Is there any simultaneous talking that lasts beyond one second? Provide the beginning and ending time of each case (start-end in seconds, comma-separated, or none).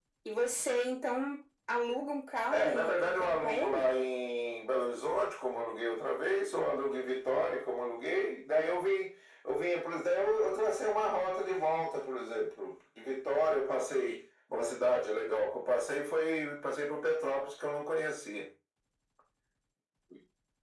2.5-4.0